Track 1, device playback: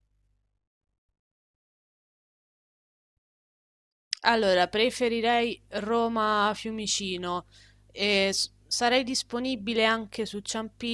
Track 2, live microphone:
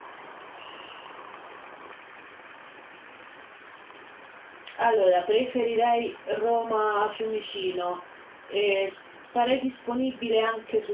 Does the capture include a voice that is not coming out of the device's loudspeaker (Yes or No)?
No